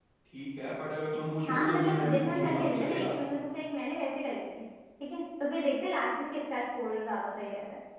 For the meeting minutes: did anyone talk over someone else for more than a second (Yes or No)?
Yes